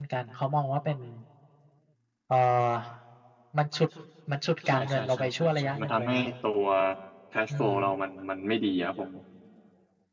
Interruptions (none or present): present